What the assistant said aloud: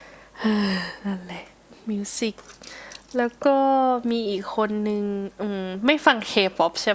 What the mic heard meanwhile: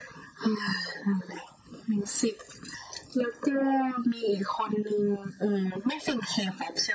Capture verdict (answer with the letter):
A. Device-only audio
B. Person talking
A